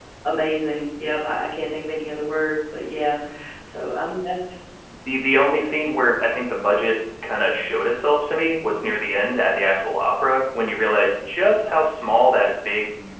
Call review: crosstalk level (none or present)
none